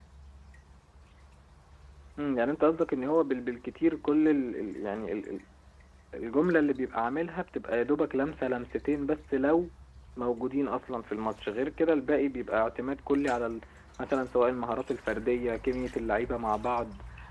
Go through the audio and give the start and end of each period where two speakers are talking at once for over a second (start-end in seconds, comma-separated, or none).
none